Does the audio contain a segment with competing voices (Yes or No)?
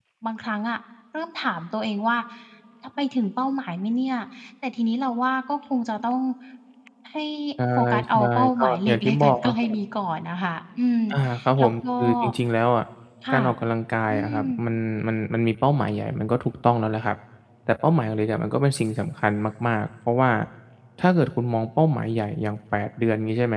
Yes